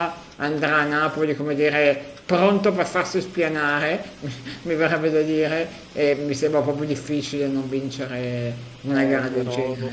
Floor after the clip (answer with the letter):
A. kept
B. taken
B